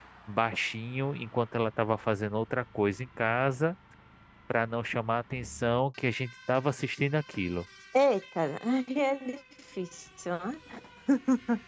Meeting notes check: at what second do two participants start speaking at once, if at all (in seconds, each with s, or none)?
none